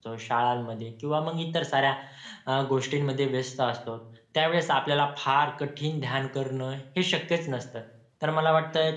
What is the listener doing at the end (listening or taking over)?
listening